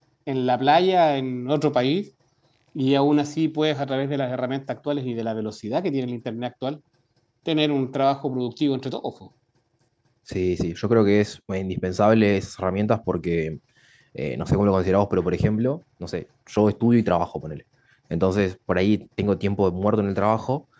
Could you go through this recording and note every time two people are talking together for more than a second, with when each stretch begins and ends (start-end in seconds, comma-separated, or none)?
none